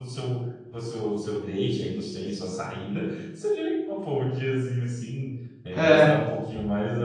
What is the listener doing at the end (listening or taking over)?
listening